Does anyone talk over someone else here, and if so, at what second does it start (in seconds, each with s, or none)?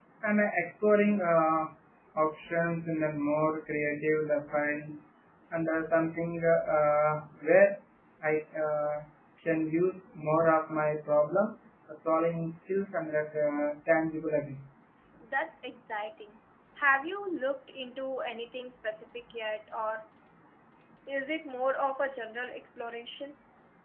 none